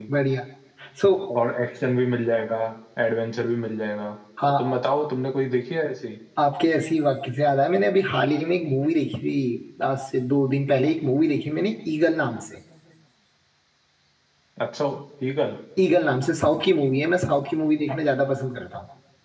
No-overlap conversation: Yes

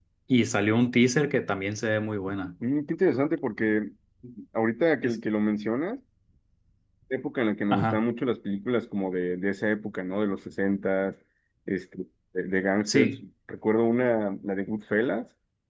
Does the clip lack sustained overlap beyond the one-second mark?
Yes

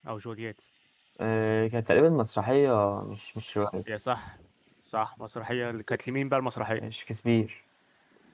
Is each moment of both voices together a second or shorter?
Yes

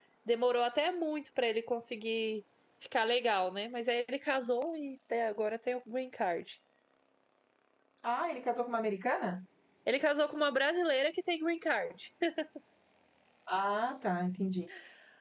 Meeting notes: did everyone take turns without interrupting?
Yes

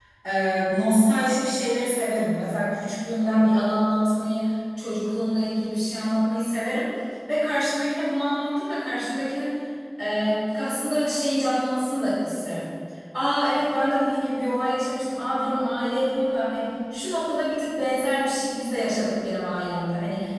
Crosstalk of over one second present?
No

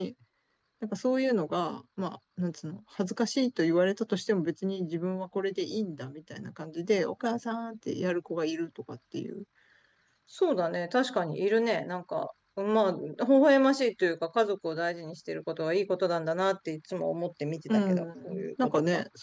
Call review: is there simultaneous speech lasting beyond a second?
Yes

